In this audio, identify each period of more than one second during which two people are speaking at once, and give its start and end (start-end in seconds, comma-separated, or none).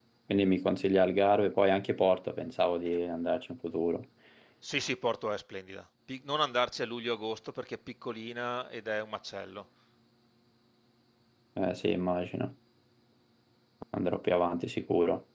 none